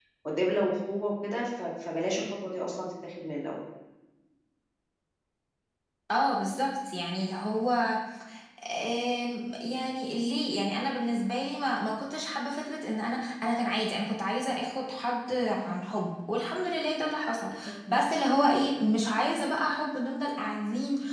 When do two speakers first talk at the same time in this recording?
none

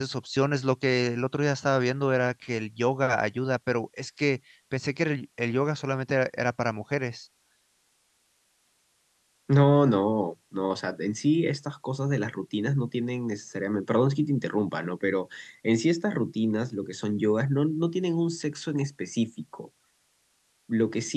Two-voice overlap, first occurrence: none

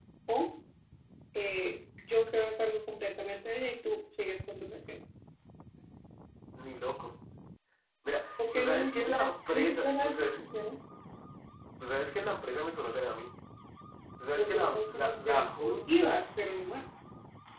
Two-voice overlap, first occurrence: 8.5 s

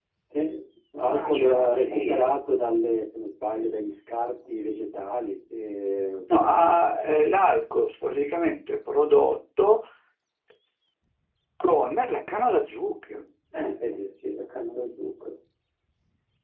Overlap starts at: 1.0 s

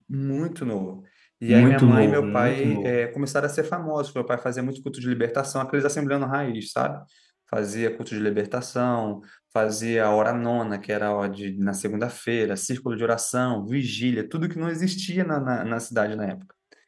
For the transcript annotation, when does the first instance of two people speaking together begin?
1.5 s

